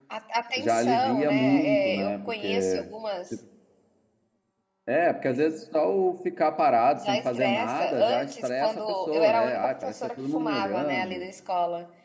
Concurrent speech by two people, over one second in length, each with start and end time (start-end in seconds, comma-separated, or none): 0.6-2.9, 7.0-11.2